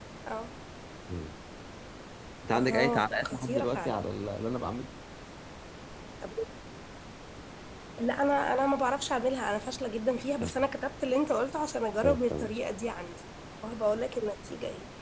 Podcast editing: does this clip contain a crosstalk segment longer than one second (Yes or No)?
Yes